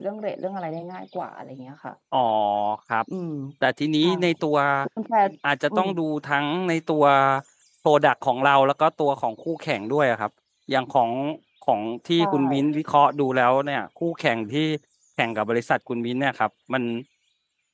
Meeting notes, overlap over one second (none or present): none